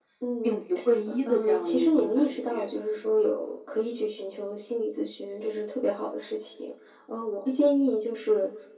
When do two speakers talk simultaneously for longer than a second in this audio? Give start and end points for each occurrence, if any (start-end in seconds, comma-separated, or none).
1.2-2.6